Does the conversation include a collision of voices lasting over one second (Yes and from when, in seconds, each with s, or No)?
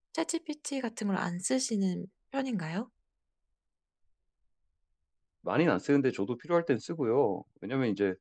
No